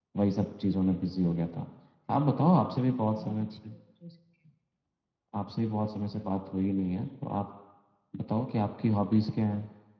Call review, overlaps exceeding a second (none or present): present